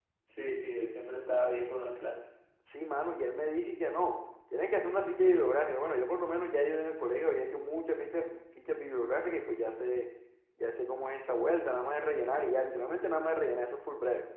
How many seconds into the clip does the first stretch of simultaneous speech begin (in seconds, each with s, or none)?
none